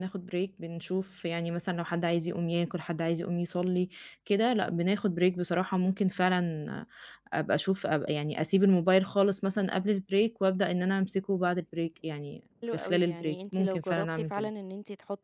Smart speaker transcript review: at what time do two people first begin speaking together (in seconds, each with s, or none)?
12.6 s